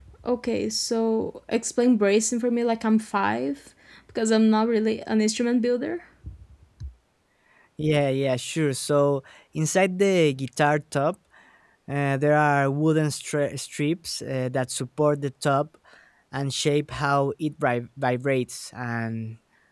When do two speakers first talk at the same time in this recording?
none

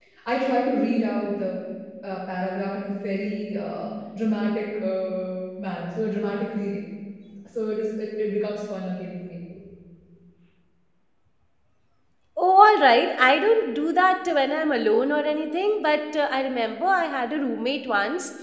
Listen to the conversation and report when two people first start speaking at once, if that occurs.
none

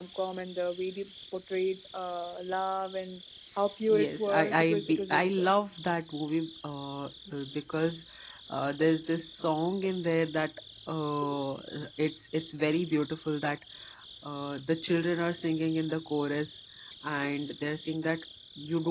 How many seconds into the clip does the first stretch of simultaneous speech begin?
3.9 s

